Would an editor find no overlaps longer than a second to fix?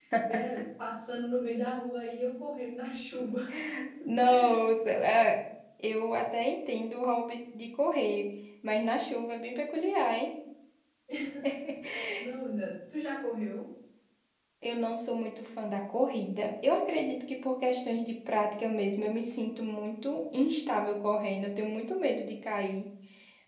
Yes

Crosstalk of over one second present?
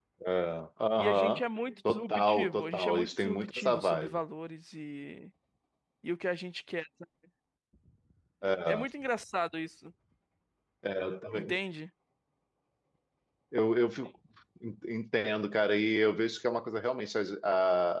Yes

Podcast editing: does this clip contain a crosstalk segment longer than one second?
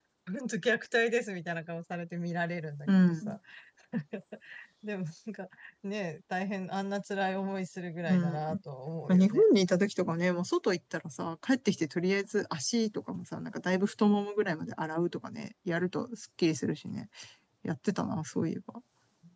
No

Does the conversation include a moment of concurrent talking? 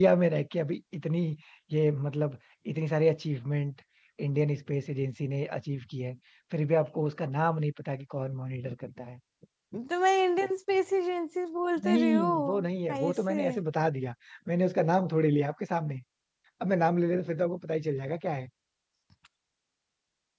Yes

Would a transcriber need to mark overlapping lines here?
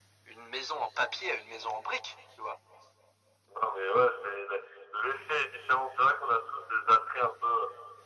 No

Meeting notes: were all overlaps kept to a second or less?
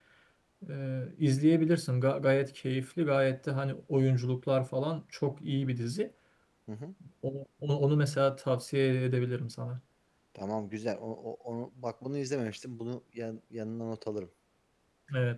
Yes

